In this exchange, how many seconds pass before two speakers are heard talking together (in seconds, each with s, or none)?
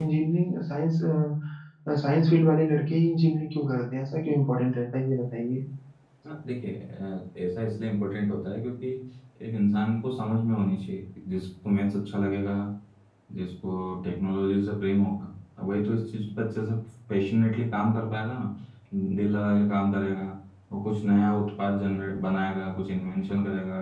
none